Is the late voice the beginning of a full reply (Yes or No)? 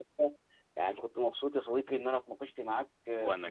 No